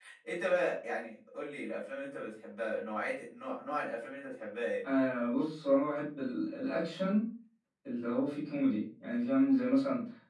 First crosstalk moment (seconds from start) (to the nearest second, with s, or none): none